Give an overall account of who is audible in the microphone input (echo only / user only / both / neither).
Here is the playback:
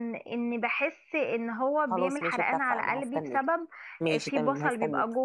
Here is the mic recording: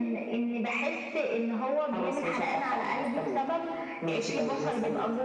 echo only